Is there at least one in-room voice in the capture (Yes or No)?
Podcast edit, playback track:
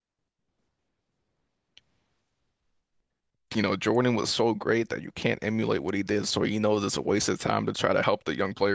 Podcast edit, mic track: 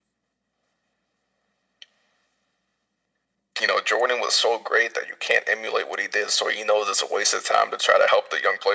No